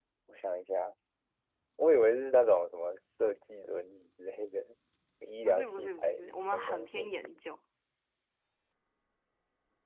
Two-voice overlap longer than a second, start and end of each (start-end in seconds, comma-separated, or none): 5.4-7.1